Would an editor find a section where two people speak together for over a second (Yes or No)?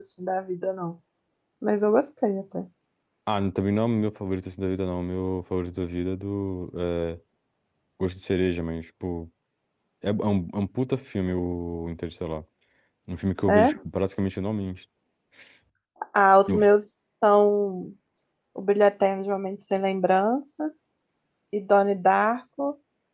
No